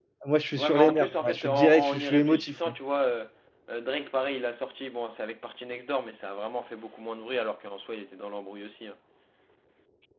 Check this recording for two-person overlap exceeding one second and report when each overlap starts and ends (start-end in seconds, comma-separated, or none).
0.6-2.7